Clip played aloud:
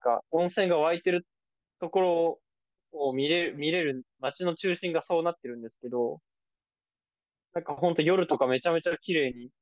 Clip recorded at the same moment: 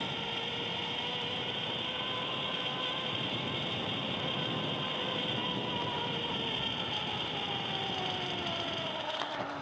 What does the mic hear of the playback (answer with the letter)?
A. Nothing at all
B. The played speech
A